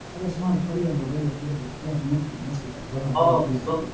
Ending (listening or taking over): taking over